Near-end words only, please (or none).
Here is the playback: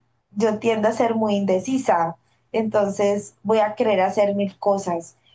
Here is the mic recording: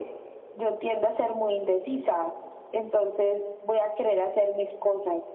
none